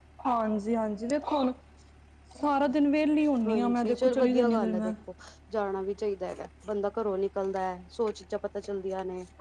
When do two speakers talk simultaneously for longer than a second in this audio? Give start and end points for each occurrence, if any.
3.4-4.9

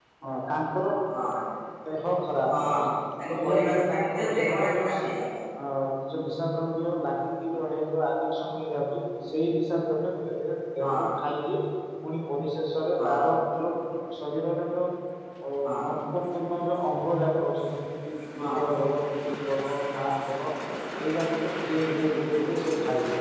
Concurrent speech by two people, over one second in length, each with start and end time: 3.4-4.9

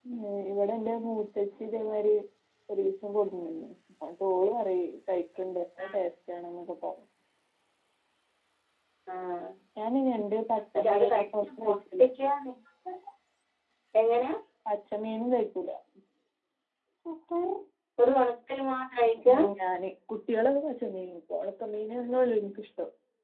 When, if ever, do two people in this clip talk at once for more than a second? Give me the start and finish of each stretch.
10.8-12.0

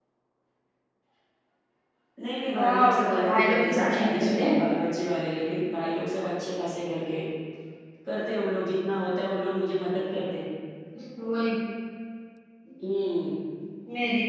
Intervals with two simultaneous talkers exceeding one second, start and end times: 2.5-4.5

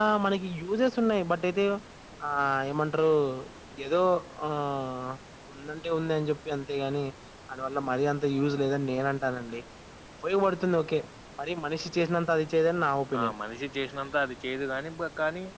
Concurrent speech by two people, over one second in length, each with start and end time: none

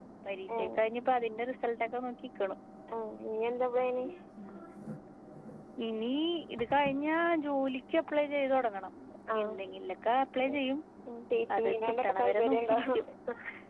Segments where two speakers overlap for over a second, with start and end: 11.6-12.8

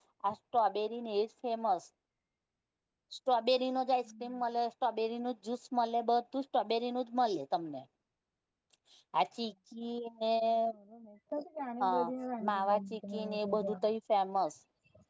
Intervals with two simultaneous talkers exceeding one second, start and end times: 12.4-13.8

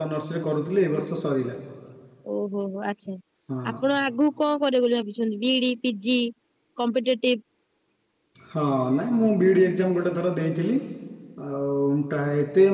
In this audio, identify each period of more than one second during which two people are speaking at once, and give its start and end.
none

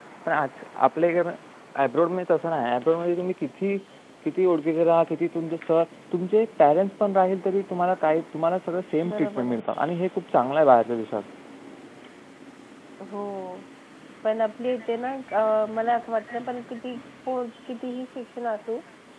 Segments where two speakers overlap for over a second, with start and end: none

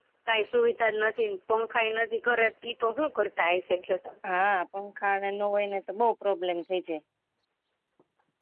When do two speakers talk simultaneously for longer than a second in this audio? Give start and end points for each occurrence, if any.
none

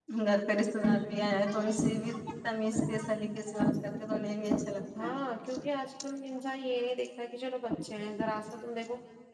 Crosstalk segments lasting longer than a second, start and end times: none

